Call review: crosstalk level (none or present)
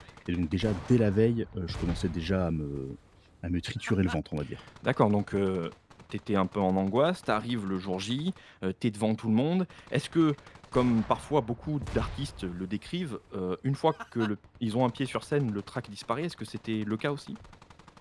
none